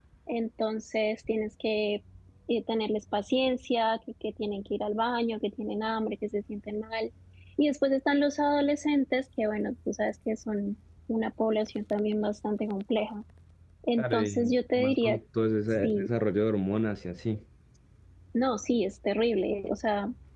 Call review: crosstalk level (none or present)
present